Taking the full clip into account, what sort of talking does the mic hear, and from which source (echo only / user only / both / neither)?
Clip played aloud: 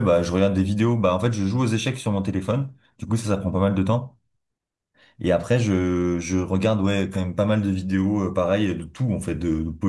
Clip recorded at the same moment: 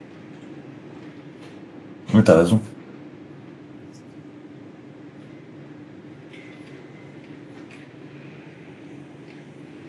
user only